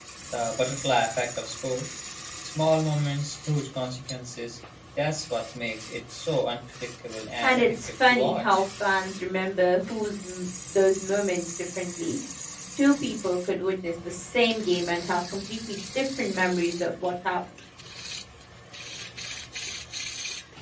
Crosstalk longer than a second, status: present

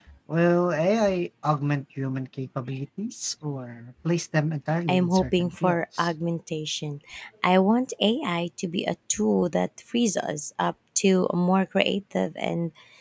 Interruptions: present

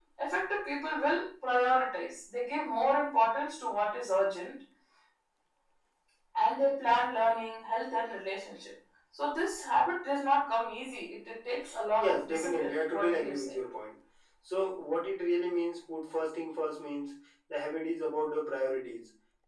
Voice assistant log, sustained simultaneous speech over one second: present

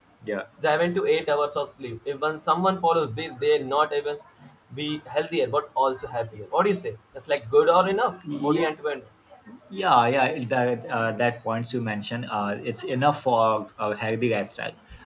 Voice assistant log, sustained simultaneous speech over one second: none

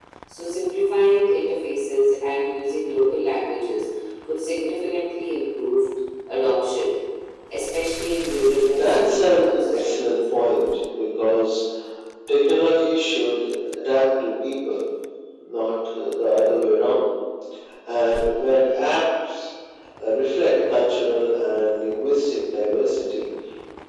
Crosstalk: present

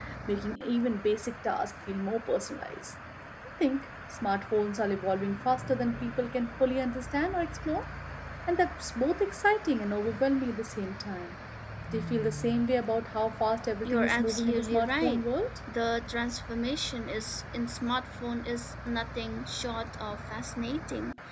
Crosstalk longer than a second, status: present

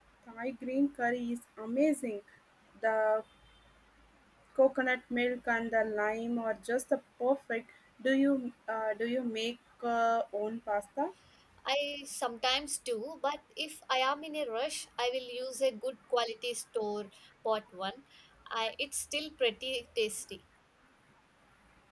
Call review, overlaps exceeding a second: none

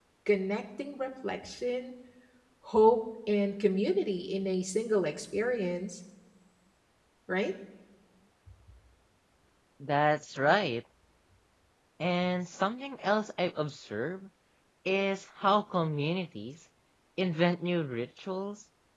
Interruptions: none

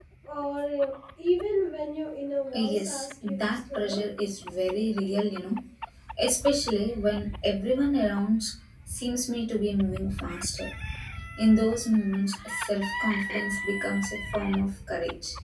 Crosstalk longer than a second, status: present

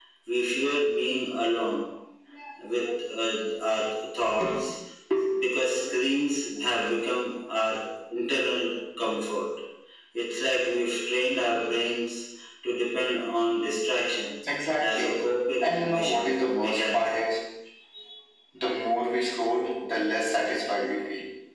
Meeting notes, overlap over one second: present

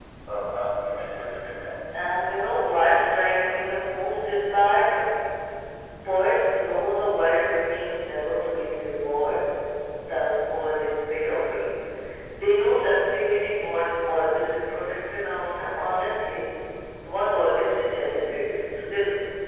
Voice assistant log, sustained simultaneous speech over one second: none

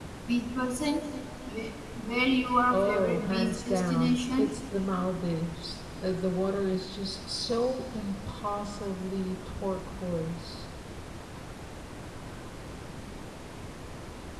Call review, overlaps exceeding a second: present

